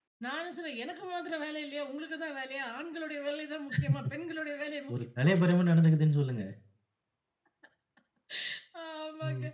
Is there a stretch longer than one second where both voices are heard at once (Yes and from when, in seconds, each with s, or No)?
No